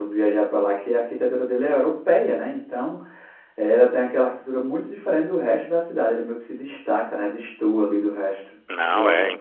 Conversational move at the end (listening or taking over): taking over